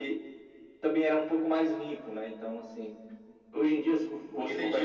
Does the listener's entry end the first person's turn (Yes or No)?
Yes